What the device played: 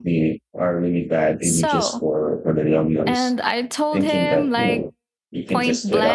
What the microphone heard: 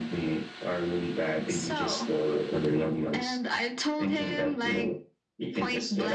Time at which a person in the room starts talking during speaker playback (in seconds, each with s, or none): none